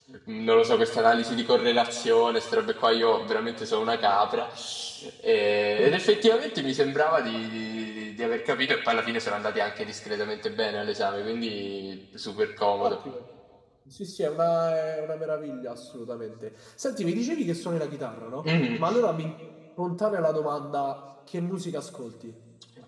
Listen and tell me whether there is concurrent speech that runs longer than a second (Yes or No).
No